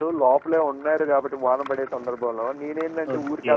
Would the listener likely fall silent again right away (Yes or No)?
Yes